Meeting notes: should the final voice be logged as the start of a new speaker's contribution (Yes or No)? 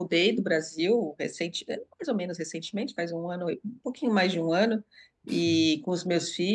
No